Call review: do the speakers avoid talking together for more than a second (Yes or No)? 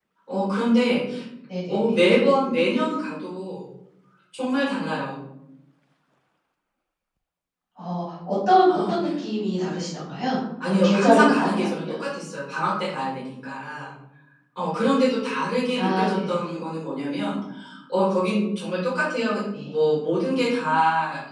No